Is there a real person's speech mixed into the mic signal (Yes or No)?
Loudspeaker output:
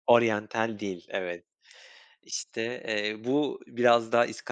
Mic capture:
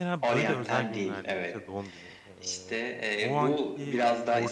Yes